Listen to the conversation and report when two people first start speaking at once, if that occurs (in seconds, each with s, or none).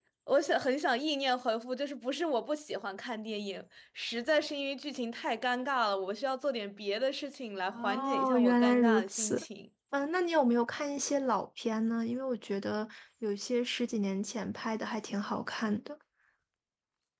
7.7 s